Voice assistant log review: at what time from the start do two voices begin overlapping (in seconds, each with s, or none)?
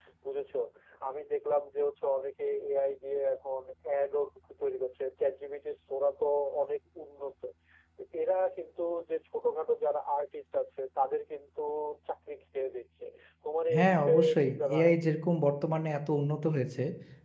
13.8 s